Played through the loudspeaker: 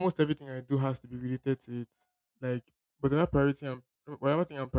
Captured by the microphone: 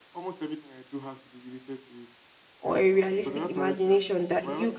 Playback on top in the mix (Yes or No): No